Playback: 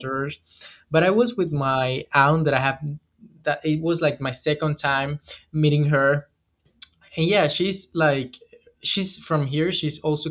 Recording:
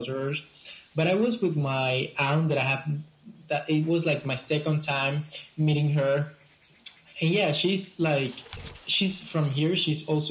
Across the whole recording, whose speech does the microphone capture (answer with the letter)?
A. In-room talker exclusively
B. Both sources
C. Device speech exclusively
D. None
C